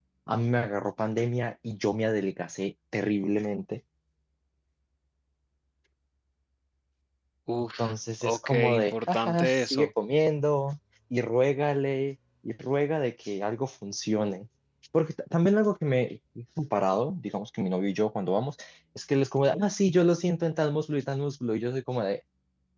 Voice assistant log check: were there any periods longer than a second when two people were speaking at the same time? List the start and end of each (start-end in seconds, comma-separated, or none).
8.2-9.9